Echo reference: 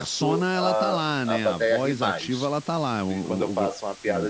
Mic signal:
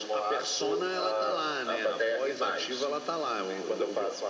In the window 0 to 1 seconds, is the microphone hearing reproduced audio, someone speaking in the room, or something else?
echo only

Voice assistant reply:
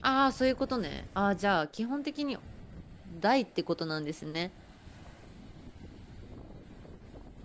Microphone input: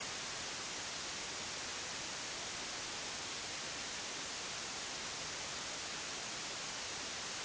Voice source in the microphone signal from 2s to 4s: neither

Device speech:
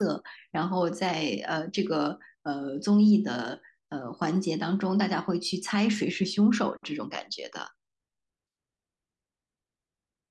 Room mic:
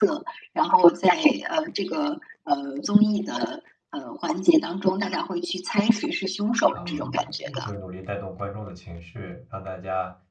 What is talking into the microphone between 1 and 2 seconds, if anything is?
echo only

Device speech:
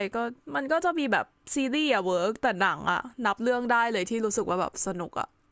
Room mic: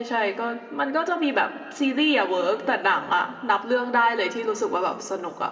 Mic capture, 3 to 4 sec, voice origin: echo only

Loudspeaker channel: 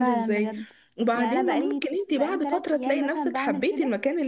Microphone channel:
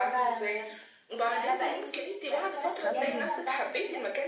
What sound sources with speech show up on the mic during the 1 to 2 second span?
echo only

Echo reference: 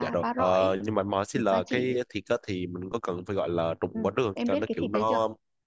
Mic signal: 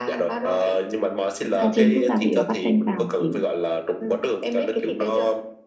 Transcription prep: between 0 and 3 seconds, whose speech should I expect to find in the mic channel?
both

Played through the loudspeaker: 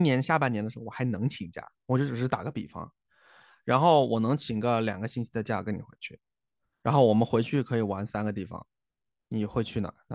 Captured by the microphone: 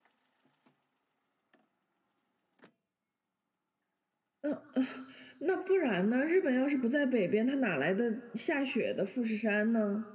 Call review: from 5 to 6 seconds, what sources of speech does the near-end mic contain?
user only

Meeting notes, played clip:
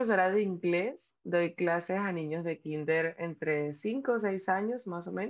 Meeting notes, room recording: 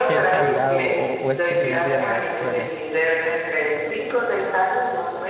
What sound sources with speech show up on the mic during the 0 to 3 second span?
both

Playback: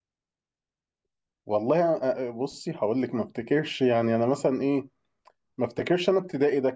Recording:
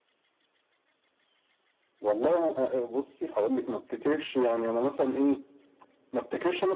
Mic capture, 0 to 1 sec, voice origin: neither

